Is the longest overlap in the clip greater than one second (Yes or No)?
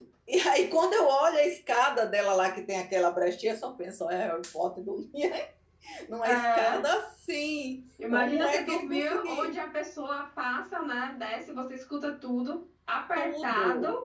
Yes